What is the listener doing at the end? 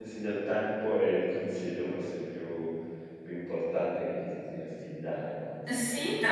taking over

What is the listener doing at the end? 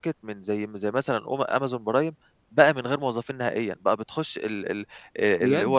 listening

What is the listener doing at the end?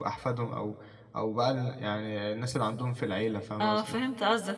taking over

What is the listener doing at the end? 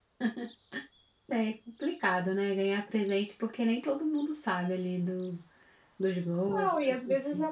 taking over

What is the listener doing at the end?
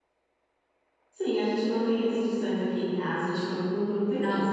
taking over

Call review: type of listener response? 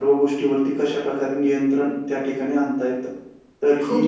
taking over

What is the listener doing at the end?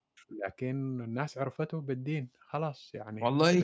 taking over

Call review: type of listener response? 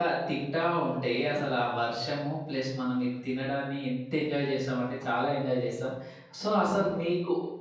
listening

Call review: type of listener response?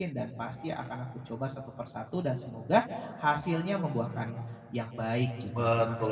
taking over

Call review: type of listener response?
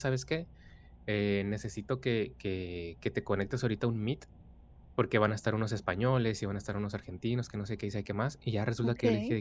listening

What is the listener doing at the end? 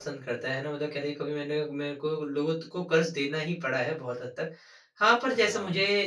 listening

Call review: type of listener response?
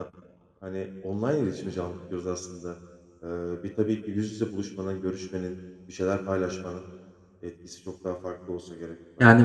taking over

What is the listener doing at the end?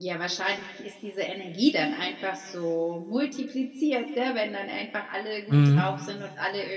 listening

